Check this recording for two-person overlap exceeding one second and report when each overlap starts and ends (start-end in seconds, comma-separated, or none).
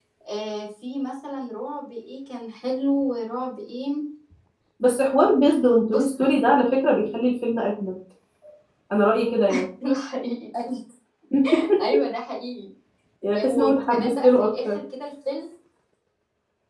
13.3-14.8